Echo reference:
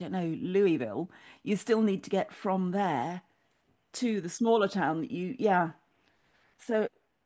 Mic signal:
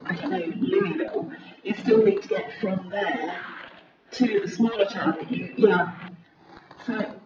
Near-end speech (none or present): none